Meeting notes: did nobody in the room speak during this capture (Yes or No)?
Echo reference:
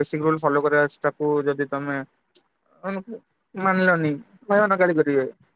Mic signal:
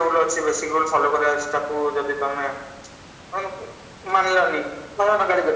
Yes